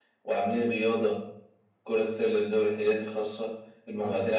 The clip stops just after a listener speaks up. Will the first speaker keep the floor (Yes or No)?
Yes